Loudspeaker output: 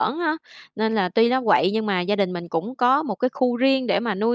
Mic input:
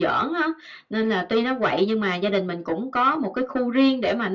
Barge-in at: none

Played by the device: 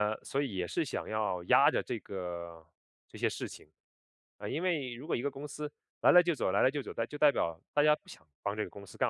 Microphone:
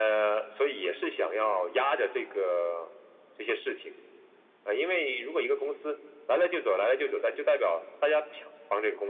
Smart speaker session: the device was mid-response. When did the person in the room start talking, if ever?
none

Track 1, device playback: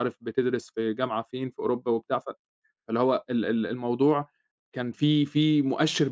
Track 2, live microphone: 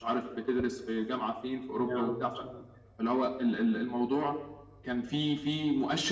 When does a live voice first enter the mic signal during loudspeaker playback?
1.8 s

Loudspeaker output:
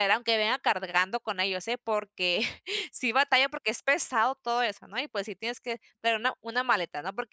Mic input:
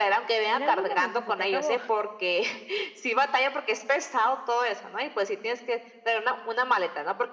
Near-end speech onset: 0.5 s

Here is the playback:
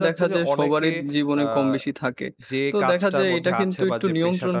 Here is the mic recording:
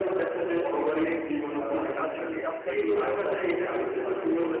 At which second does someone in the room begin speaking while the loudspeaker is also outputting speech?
1.8 s

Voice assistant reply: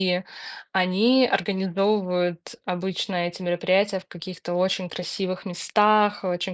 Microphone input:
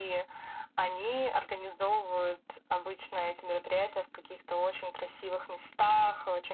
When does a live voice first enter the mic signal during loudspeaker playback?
none

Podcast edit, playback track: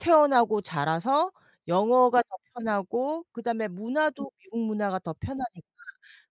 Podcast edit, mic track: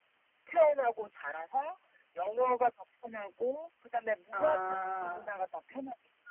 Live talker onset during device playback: 4.3 s

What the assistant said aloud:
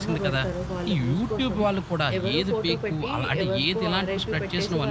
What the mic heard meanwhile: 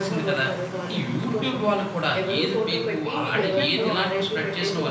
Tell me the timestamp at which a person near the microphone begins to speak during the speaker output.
3.4 s

